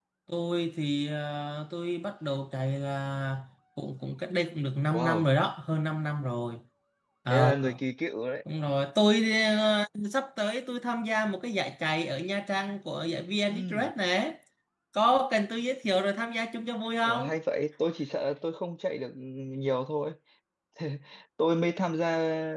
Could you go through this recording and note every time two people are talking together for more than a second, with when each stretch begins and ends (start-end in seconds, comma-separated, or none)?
none